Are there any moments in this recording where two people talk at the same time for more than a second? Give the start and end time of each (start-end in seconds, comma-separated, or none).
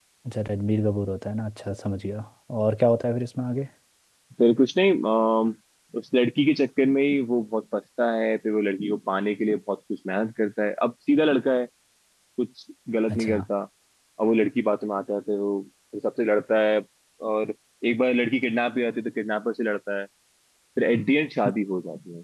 none